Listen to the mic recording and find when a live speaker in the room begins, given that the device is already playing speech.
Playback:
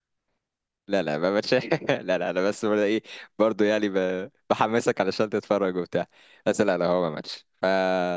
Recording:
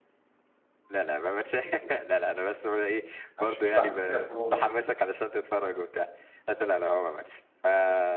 3.4 s

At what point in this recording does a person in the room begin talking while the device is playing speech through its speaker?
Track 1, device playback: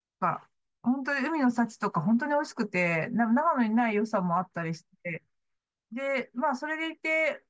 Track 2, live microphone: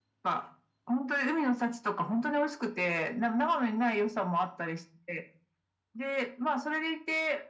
none

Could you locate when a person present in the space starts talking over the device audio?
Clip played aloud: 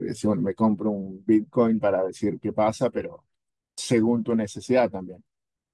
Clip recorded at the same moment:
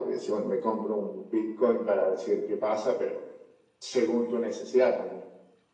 none

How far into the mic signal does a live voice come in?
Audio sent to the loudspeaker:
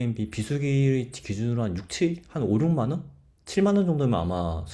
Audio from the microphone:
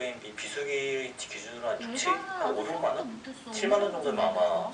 1.8 s

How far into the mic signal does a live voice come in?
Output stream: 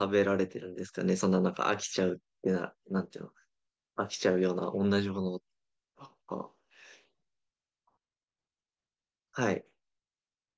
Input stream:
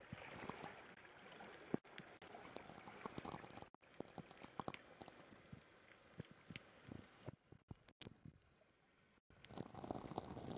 none

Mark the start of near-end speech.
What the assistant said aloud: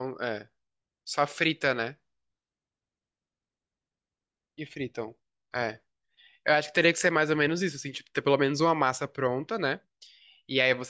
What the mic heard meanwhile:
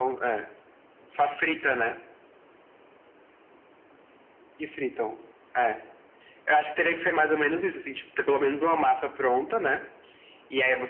none

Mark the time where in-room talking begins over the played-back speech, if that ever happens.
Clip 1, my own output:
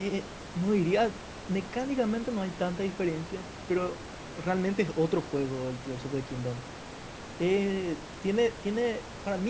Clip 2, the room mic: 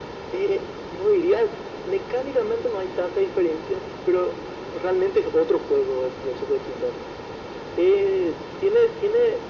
none

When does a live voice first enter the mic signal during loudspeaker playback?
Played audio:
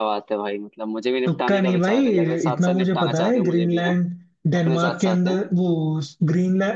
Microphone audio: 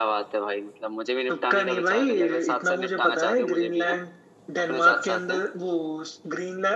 none

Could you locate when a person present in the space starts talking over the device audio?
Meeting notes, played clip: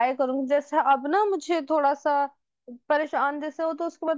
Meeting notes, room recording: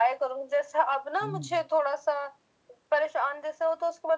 1.2 s

